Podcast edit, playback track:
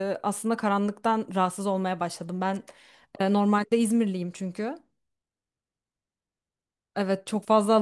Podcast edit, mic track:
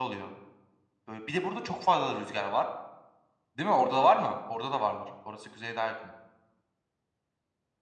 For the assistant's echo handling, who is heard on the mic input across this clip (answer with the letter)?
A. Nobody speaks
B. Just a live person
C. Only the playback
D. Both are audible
B